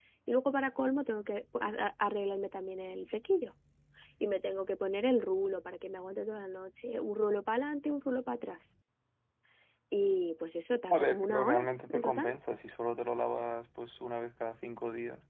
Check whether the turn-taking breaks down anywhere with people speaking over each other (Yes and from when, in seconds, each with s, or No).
Yes, from 10.9 s